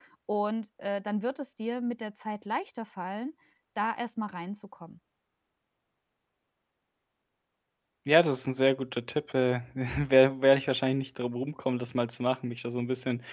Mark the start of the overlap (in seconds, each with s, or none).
none